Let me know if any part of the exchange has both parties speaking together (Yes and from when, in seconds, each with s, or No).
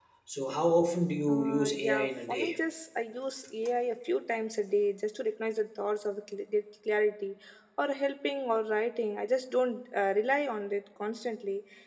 Yes, from 1.3 s